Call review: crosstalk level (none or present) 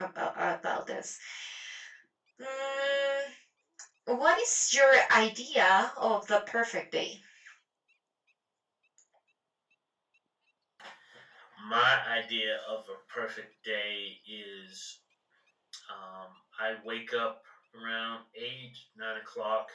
none